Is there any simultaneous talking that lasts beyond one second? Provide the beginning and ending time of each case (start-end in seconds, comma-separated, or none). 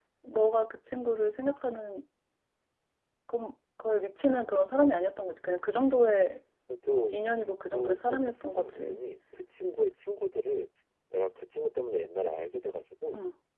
7.7-9.0